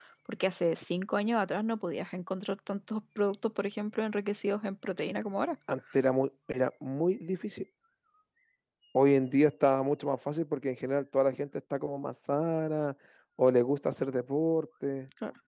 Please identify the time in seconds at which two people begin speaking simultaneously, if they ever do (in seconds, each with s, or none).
none